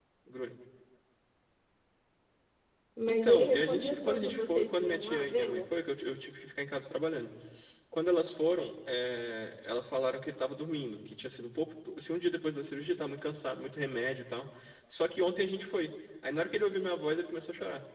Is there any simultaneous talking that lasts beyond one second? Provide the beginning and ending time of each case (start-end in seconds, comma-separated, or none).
3.1-5.6